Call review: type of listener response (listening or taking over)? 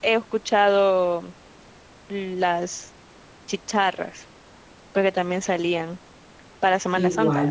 taking over